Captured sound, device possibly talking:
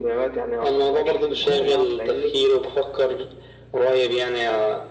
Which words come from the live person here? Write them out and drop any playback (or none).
لا يا عم